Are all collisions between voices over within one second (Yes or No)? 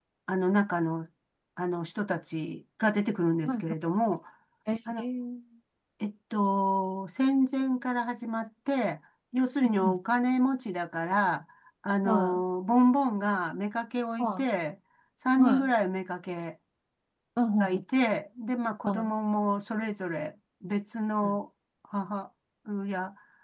Yes